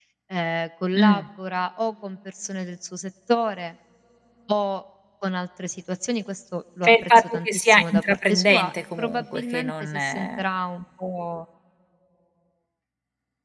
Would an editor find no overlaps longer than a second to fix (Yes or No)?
No